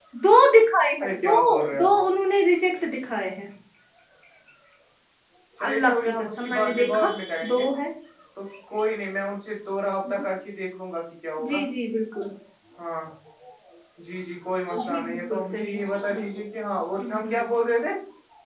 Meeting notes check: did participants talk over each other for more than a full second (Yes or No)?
Yes